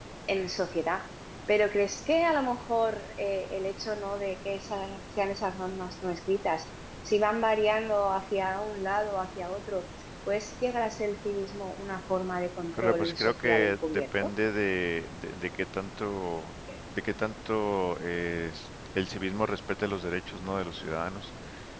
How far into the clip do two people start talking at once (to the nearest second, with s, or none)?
13 s